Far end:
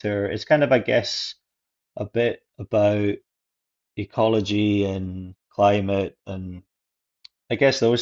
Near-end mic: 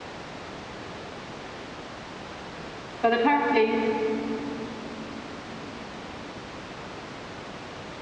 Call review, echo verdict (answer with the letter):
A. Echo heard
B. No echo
B